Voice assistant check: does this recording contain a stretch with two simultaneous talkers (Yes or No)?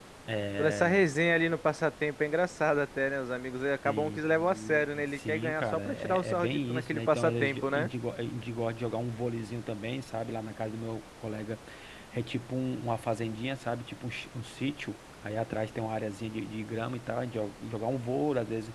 Yes